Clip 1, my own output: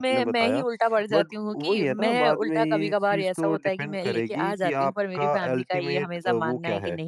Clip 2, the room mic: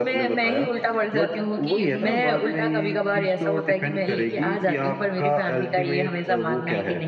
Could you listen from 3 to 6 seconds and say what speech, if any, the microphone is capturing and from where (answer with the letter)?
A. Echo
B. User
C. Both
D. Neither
A